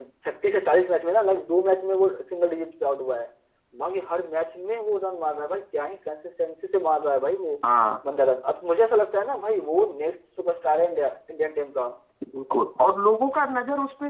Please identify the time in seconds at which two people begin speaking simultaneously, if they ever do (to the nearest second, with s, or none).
none